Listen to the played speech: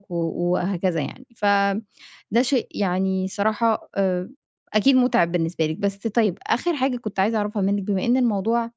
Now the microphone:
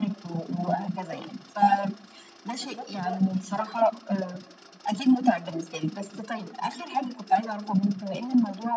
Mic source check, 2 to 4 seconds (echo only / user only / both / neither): both